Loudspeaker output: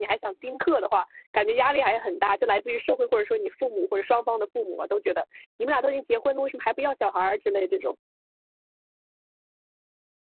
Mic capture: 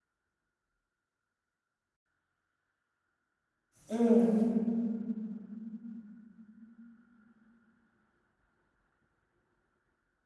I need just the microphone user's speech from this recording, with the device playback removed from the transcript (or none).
嗯，